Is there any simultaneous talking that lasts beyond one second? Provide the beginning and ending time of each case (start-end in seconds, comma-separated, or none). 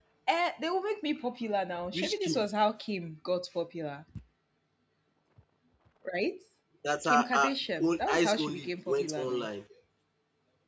7.0-9.5